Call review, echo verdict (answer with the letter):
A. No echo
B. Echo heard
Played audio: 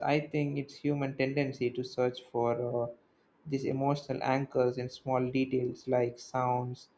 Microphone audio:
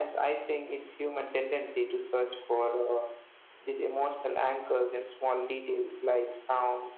B